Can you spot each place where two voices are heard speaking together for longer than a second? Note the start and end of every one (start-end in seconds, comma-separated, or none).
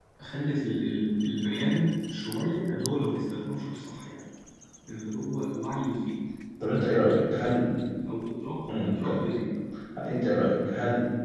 none